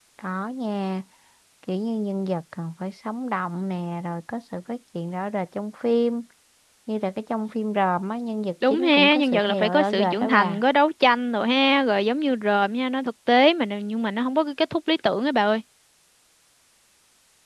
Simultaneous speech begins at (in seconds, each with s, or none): 8.6 s